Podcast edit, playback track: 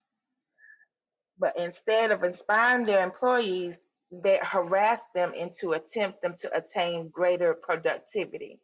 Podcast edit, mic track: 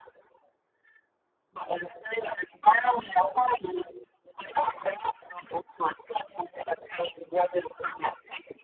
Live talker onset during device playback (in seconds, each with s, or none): none